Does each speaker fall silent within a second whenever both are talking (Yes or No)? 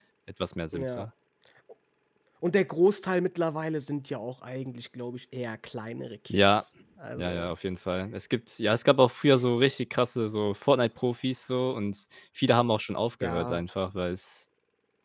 Yes